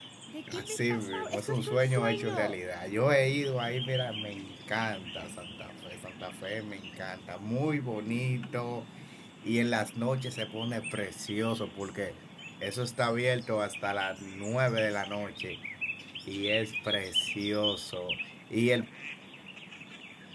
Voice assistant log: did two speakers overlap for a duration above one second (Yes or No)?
Yes